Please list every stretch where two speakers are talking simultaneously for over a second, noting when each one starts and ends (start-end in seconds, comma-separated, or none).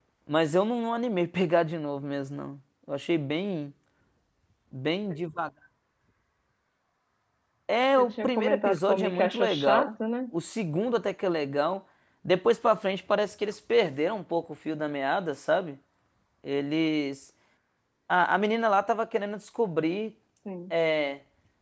8.0-9.9